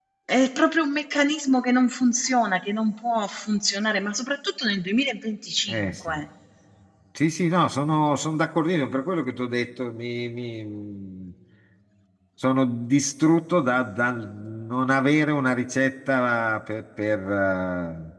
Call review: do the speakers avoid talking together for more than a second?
Yes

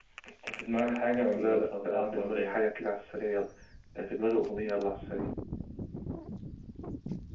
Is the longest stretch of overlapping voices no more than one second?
No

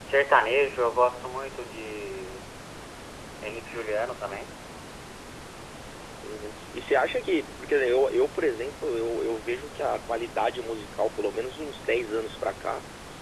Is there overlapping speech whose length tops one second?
No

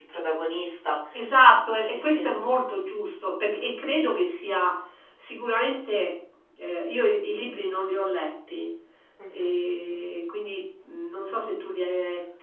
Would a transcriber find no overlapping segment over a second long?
Yes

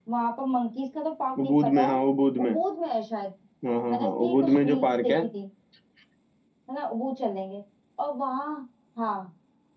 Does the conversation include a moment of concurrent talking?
Yes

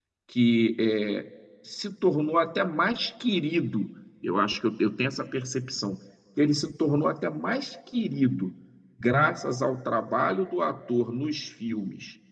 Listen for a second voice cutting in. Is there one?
No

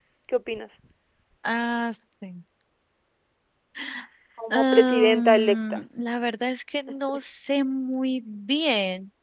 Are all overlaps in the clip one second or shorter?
No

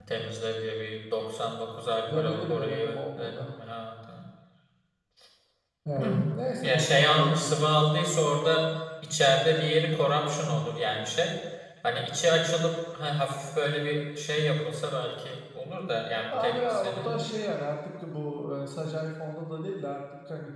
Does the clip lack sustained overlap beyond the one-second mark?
No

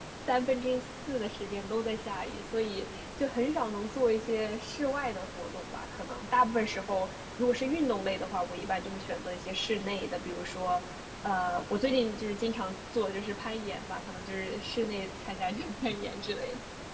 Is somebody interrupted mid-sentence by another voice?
No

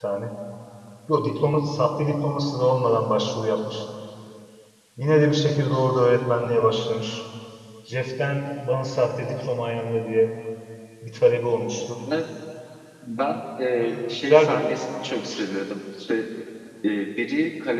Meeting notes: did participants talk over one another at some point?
Yes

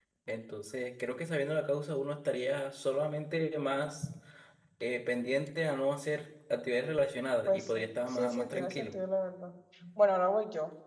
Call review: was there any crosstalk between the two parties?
Yes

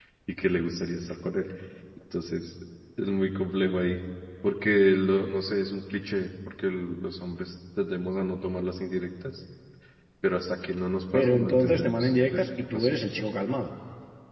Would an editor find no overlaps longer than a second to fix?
No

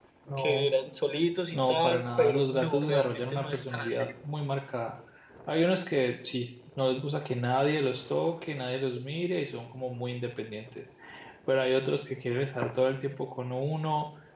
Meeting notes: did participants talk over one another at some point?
Yes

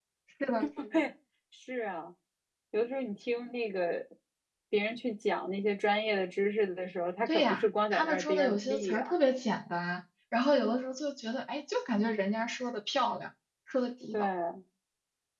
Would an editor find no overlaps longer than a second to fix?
No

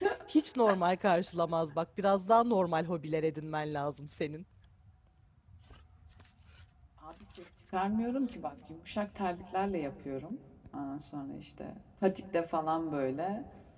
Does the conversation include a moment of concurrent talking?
No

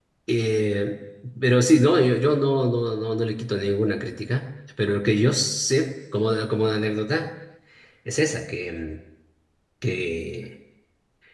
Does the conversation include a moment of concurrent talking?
No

